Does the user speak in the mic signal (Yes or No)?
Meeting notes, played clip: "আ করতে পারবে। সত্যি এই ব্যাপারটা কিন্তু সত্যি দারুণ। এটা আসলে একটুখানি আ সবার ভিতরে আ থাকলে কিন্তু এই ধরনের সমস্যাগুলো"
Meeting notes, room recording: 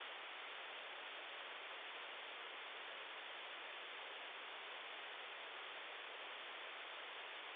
No